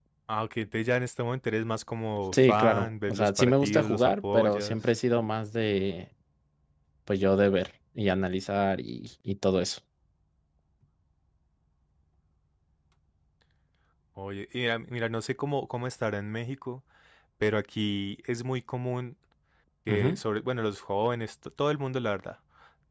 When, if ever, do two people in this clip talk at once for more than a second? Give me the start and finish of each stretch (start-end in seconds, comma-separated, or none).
2.3-4.8